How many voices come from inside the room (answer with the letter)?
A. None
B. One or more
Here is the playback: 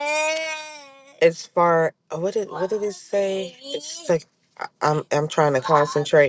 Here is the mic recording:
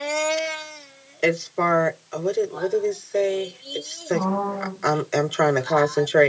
B